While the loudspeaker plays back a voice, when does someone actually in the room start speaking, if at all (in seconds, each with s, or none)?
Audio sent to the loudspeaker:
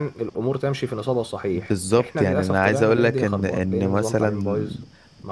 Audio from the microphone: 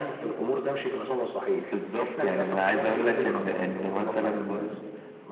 none